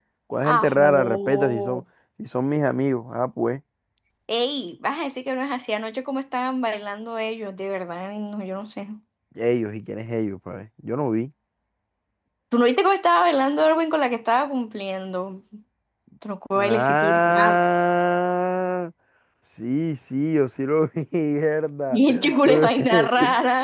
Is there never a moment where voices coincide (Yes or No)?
No